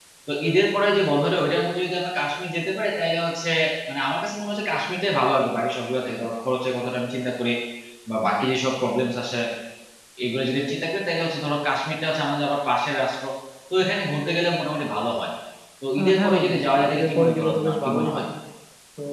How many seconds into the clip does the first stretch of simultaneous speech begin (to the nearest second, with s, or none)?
16 s